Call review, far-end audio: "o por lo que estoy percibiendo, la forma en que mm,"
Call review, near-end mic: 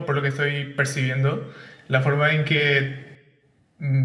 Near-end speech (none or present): none